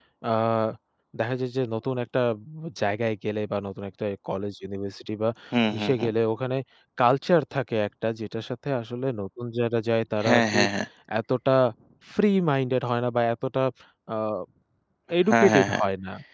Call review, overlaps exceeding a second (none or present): none